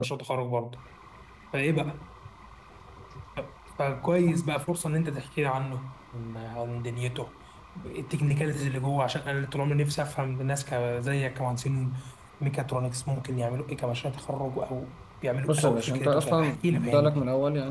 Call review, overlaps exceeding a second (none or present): present